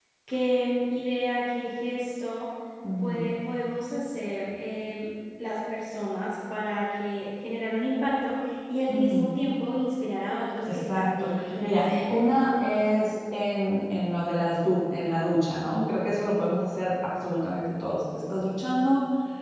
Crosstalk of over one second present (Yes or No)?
Yes